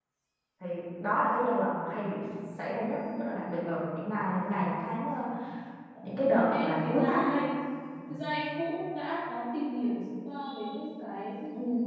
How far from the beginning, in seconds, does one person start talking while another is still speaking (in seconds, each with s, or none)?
6.1 s